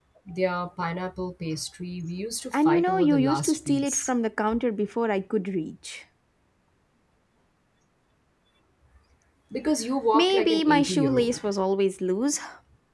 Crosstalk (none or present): present